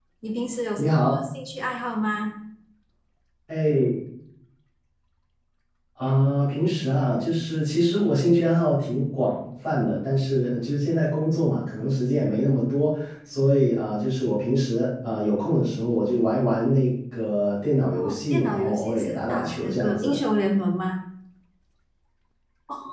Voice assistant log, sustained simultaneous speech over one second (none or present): present